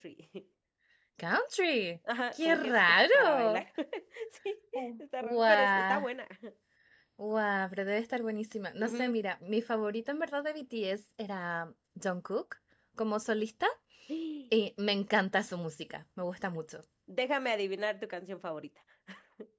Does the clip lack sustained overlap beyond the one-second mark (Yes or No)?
No